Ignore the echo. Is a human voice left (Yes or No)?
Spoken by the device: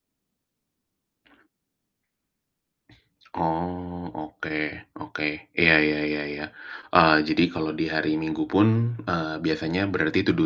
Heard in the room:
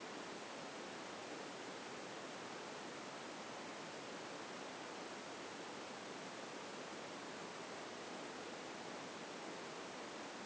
No